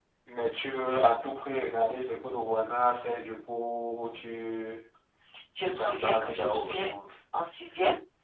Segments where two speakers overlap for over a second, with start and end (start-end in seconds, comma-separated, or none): 5.6-6.9